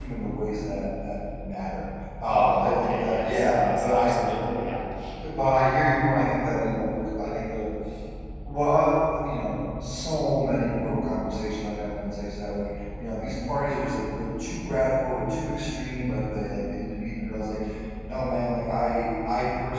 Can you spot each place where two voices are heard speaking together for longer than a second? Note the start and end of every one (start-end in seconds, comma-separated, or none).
2.3-4.1